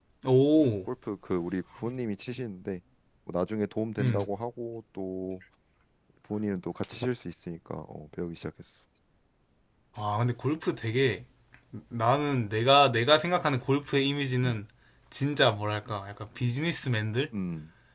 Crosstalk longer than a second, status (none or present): none